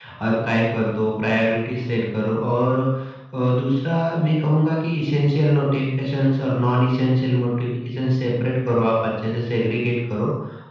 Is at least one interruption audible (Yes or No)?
No